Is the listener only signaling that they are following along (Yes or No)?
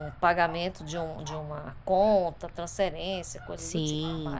No